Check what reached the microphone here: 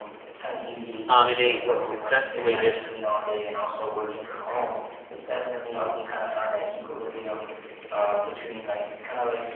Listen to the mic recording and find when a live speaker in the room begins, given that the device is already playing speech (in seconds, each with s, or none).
1.1 s